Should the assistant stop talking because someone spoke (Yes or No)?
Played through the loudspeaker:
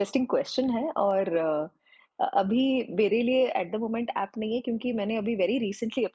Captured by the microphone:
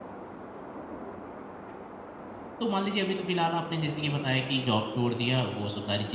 Yes